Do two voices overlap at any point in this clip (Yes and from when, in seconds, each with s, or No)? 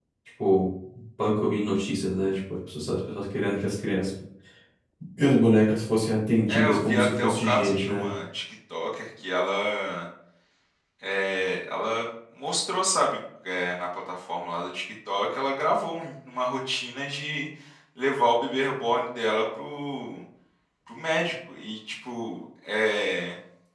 Yes, from 6.5 s